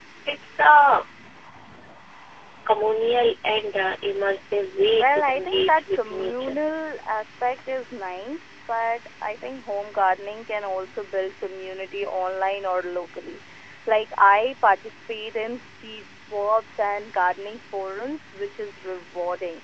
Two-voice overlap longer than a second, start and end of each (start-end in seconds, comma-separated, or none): 4.9-6.6